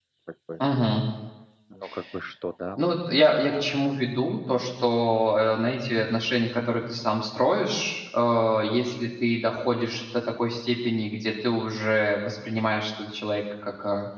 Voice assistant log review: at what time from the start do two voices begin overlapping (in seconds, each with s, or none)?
none